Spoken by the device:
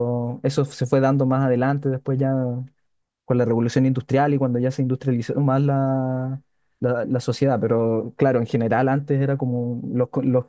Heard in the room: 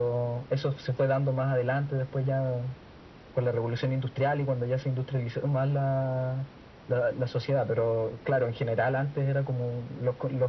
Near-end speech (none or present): none